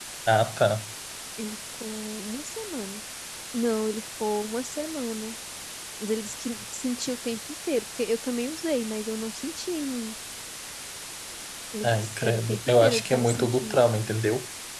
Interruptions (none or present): present